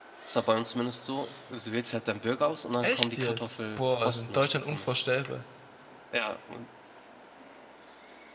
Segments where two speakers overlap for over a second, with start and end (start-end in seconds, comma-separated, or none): 2.8-5.0